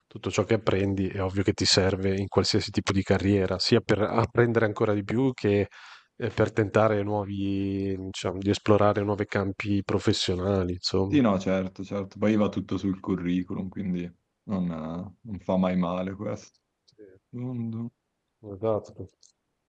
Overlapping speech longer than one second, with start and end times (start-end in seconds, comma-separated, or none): none